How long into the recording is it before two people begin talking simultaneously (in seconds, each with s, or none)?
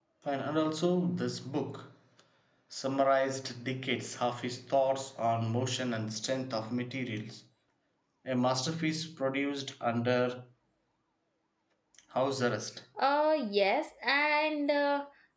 none